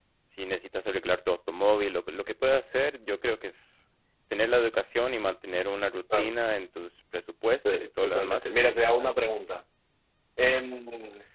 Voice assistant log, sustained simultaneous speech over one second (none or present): present